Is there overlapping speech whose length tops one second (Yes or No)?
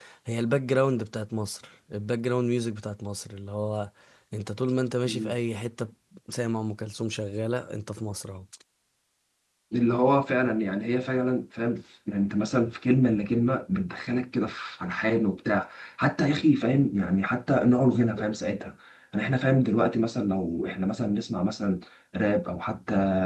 No